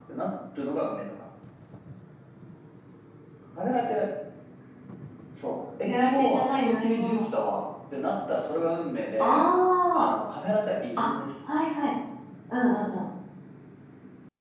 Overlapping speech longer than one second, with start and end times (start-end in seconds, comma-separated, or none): 5.8-7.2